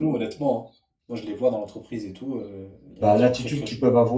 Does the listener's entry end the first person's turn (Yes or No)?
Yes